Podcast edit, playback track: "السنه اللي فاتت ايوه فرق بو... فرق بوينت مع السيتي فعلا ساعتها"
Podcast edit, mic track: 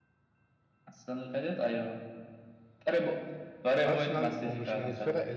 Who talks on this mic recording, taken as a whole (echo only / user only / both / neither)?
both